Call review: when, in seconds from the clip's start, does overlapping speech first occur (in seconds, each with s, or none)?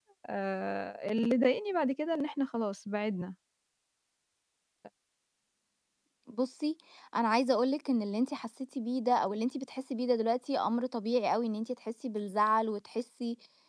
none